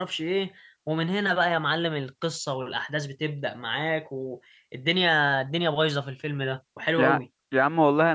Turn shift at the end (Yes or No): Yes